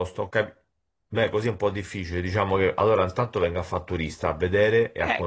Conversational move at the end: taking over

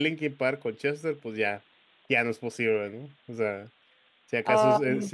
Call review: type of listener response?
listening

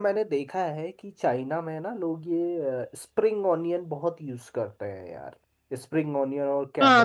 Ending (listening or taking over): taking over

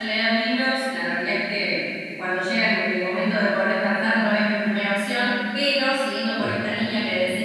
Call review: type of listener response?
listening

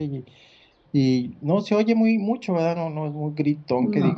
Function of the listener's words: listening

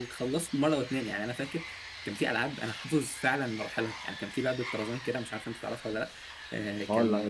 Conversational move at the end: taking over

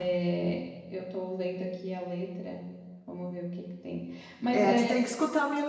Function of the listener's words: taking over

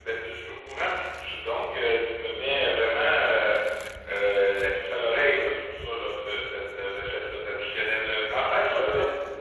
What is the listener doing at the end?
taking over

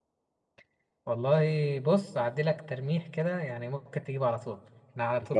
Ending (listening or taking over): listening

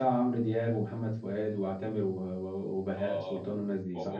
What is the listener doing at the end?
taking over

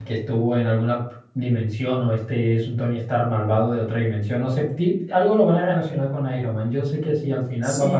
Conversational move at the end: taking over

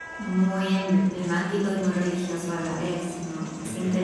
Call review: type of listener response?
taking over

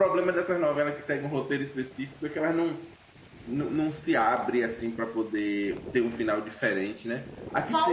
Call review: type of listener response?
taking over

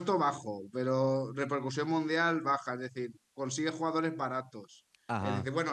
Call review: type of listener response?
listening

